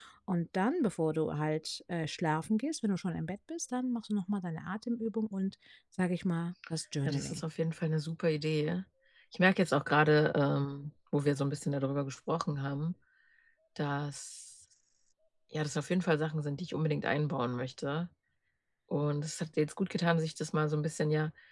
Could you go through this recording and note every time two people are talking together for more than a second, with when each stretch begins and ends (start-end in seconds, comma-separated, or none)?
none